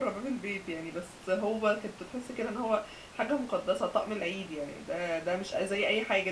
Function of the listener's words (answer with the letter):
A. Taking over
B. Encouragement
B